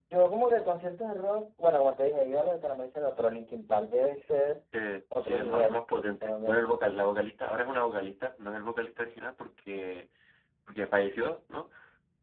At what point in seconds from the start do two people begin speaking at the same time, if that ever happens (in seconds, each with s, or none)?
5.2 s